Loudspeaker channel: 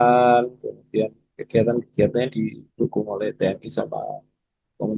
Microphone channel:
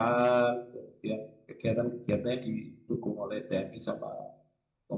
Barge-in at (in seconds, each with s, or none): none